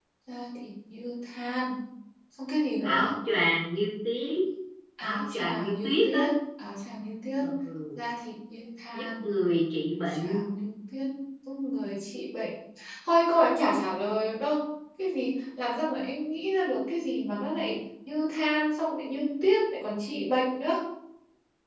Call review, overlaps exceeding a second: present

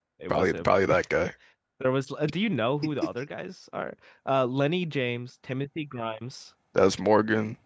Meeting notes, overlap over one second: none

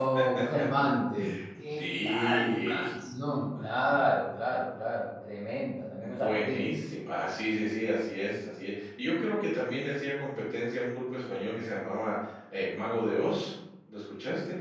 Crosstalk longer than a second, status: present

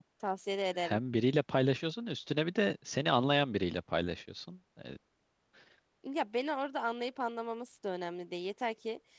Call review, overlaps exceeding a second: none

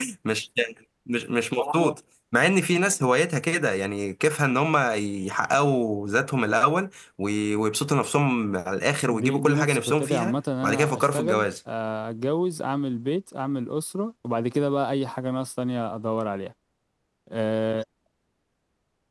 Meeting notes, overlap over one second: present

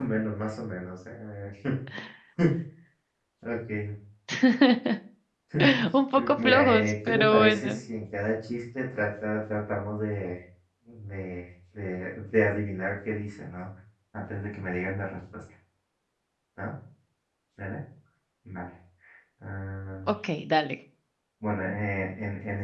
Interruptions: present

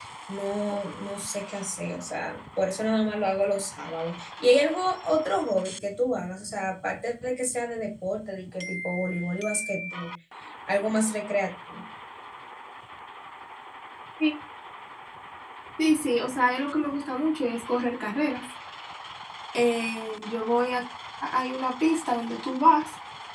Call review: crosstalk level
none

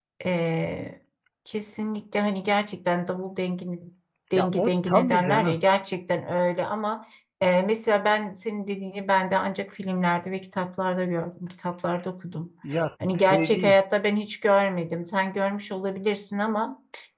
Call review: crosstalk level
present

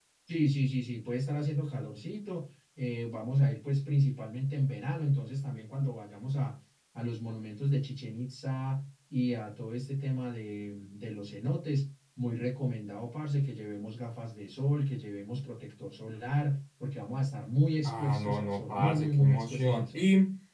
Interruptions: present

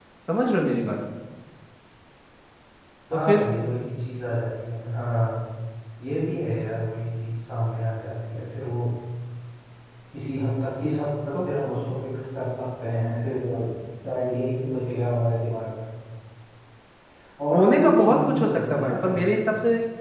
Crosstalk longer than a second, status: present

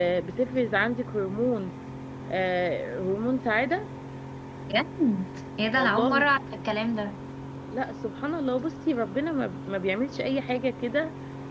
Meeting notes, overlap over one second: none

